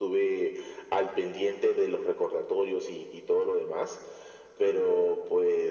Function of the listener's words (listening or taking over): listening